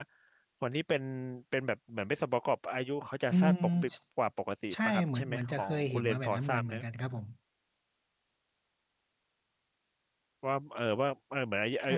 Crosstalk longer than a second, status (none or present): present